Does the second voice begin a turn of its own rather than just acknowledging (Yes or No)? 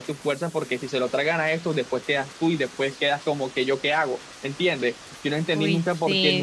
No